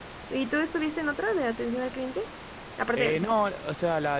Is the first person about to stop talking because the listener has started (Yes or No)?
Yes